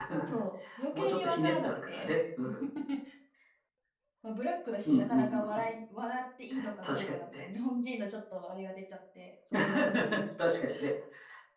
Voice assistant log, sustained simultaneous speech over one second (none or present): present